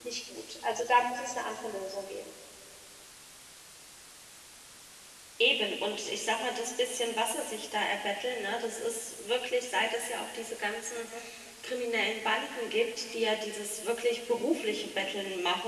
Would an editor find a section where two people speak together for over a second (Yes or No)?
No